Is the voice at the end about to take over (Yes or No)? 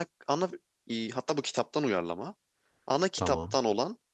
No